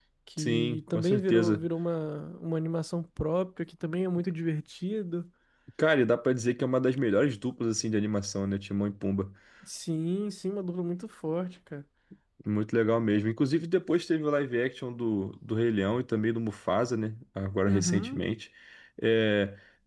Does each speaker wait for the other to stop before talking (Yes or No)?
No